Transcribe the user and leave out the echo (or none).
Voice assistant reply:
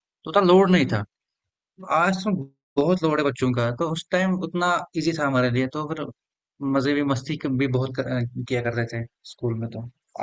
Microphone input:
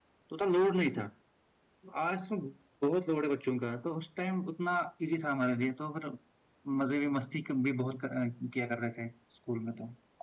none